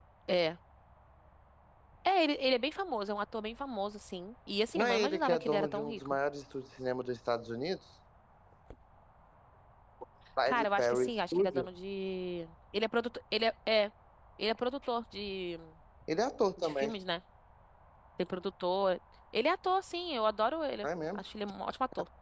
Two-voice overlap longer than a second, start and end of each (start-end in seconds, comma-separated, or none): 4.8-6.2, 10.5-11.7